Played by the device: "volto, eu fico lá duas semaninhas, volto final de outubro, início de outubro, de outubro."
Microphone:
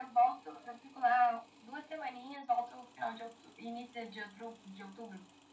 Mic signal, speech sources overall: echo only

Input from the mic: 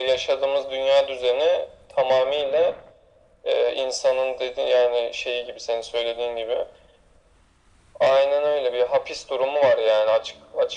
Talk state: echo only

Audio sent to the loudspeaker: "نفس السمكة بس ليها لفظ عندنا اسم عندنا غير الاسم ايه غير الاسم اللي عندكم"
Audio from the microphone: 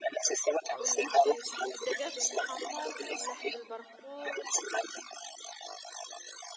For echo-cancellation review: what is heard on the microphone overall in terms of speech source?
both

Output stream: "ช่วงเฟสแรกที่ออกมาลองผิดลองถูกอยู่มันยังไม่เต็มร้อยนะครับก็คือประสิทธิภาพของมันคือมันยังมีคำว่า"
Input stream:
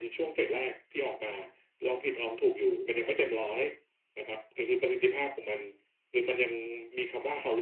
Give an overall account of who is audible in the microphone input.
echo only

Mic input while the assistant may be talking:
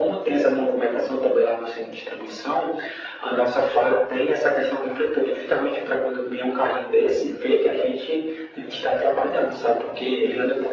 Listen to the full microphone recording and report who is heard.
echo only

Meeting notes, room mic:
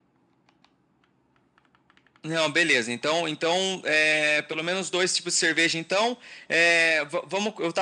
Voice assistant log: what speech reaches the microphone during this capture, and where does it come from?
echo only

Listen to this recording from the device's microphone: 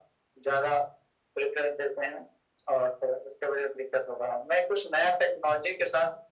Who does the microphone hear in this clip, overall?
echo only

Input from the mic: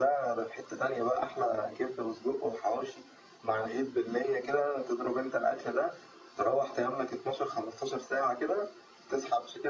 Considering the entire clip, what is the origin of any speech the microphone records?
echo only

